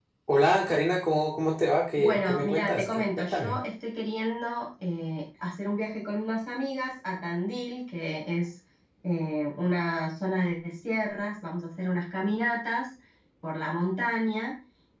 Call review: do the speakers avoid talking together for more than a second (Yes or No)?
No